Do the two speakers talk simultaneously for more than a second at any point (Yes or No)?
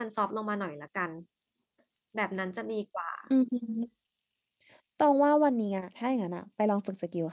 No